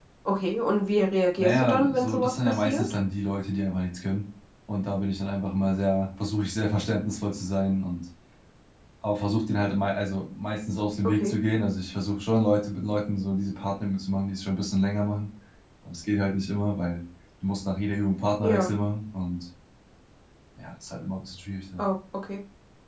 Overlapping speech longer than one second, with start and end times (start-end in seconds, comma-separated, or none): 1.4-2.8